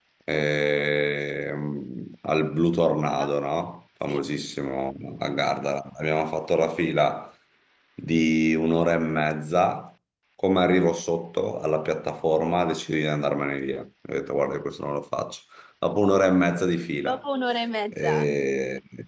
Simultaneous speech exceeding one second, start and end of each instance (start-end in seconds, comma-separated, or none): none